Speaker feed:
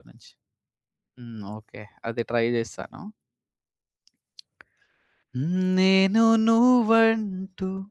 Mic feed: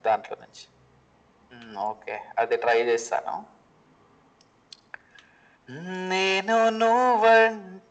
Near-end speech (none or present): none